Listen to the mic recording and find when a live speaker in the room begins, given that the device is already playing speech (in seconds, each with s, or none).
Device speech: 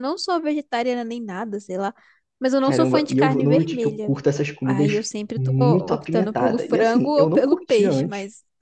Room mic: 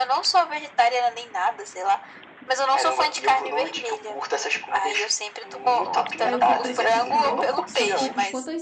6.2 s